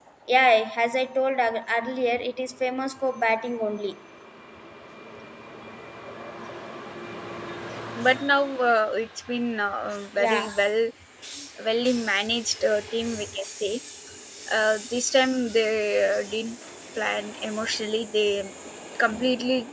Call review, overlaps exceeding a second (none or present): none